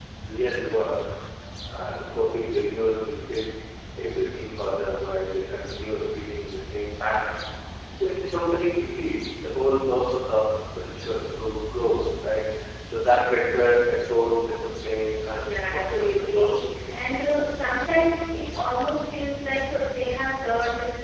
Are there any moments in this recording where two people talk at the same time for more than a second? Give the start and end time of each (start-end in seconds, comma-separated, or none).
15.3-16.8